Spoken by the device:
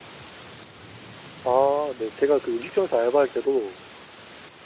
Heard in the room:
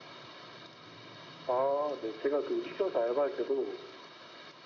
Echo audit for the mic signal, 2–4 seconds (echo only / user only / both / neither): echo only